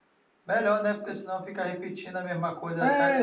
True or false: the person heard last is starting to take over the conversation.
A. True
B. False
A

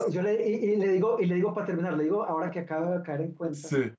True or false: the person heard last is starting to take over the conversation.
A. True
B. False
B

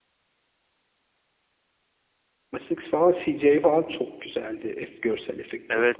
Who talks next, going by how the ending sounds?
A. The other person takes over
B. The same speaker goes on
A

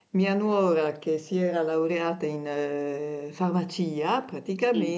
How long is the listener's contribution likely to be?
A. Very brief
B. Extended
A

